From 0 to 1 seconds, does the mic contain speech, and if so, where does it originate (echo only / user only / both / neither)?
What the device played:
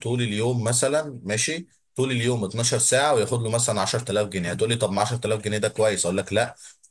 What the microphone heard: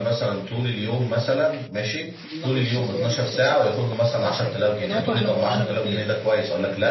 echo only